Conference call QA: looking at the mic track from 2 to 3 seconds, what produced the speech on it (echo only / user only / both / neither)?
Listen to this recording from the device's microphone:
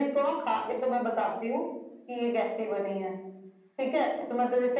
echo only